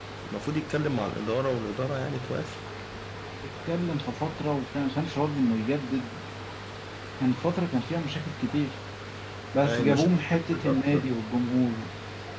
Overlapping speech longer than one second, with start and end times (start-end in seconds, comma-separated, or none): 9.6-11.1